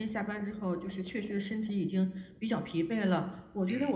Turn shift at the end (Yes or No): No